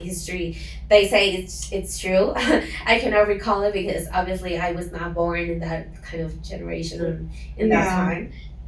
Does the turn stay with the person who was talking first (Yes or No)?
Yes